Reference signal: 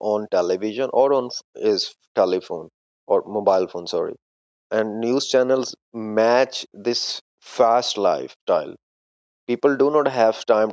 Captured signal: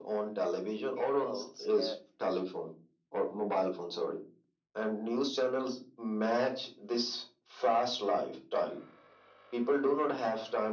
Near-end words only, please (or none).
people can